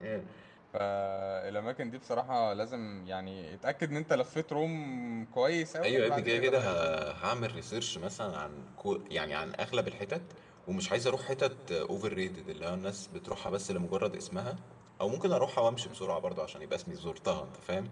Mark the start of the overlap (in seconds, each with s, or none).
5.8 s